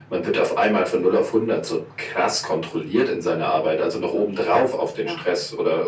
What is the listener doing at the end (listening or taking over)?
listening